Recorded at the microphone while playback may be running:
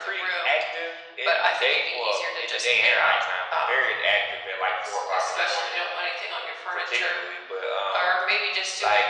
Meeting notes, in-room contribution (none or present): none